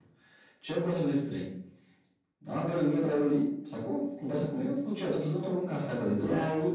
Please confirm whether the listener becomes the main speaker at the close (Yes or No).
Yes